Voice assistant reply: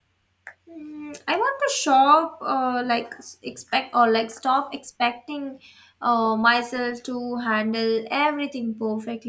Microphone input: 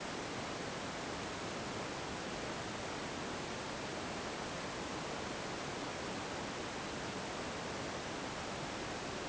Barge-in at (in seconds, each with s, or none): none